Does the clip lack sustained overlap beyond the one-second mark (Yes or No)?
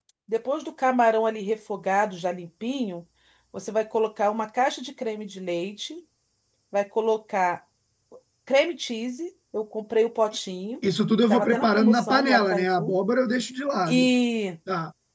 No